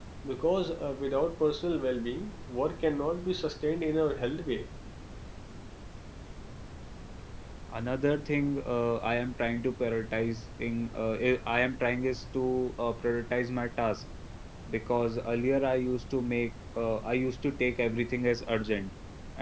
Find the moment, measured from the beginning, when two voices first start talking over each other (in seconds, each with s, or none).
none